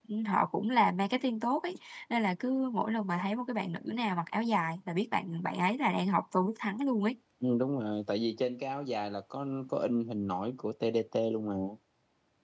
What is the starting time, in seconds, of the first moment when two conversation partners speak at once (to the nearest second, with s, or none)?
none